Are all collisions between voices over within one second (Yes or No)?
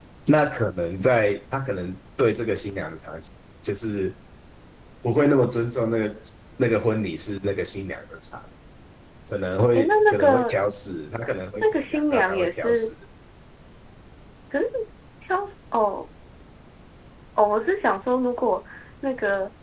No